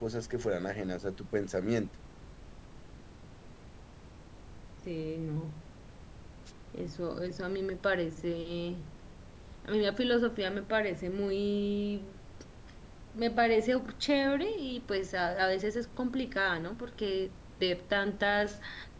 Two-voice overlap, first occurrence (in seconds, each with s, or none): none